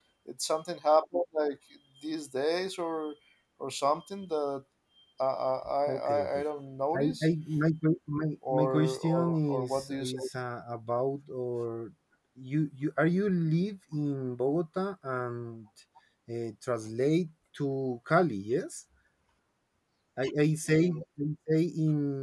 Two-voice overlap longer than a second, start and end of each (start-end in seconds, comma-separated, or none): 8.5-10.2